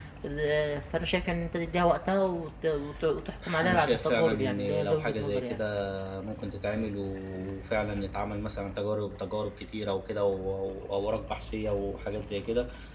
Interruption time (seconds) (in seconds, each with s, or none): 3.4 s